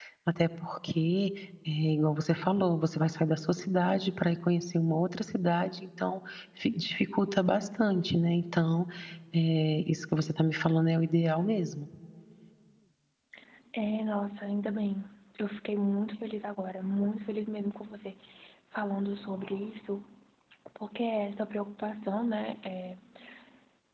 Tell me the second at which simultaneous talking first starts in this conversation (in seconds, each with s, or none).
none